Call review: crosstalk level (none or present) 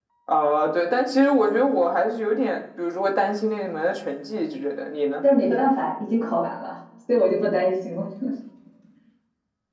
none